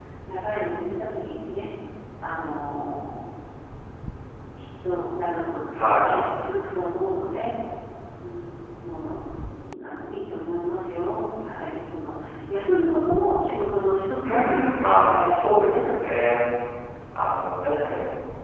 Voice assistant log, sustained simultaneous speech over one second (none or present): present